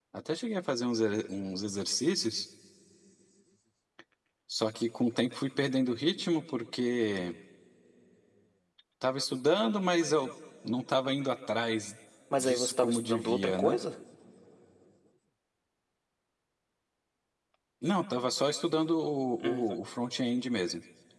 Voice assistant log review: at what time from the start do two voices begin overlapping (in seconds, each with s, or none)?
12.4 s